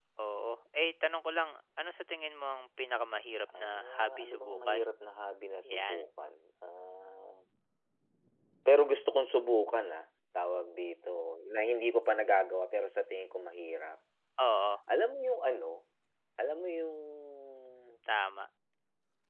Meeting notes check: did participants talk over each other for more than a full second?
Yes, from 3.6 s

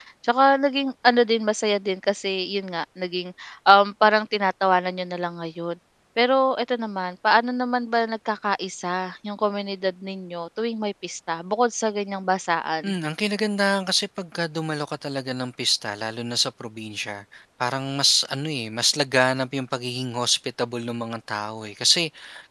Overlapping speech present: No

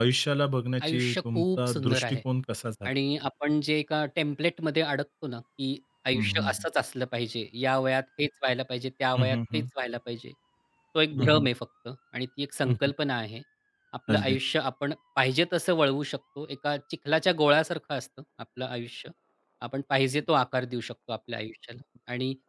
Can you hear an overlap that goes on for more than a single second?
Yes, from 0.8 s

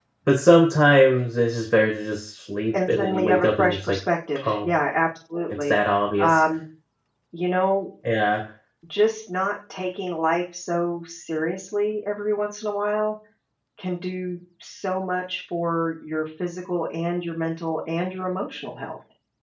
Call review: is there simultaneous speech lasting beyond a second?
Yes, from 2.7 s

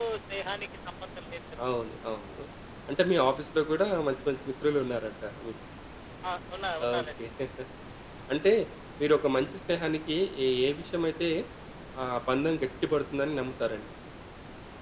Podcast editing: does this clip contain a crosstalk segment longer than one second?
No

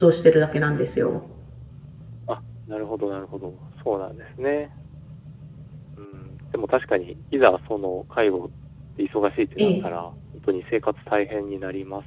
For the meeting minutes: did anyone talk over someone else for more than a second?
No

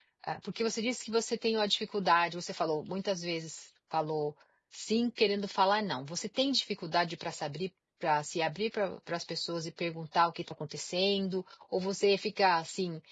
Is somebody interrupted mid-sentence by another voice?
No

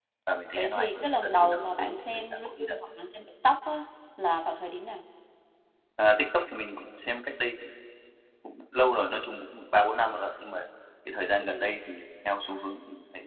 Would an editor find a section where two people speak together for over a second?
Yes, from 0.6 s

